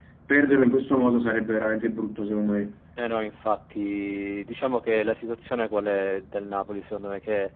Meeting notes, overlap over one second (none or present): none